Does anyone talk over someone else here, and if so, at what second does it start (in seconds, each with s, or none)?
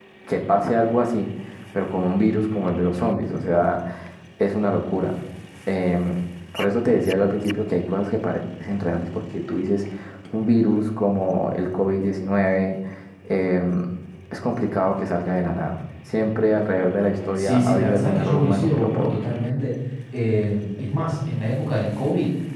17.4 s